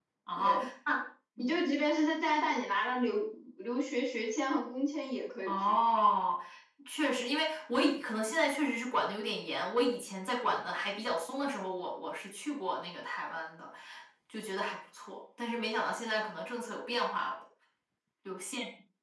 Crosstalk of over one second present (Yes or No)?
No